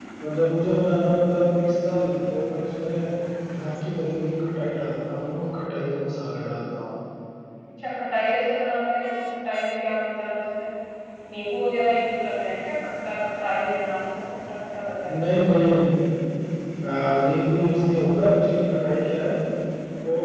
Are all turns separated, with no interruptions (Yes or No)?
Yes